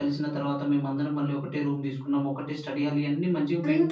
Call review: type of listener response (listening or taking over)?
taking over